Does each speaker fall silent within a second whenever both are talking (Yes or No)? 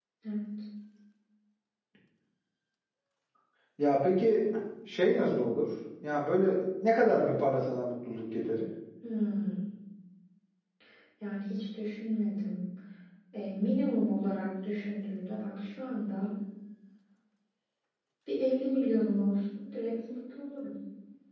Yes